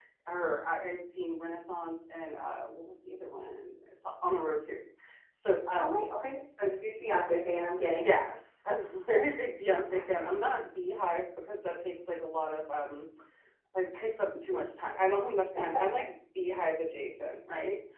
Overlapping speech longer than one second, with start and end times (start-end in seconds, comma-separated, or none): none